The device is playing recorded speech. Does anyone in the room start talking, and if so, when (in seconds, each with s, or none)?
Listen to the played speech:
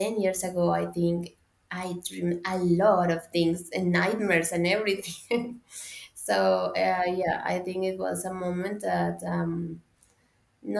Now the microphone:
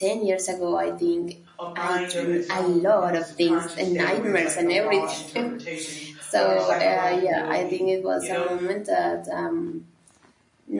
1.6 s